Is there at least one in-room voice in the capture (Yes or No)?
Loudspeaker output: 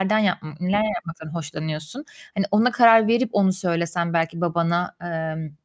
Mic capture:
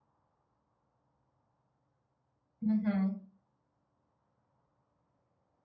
Yes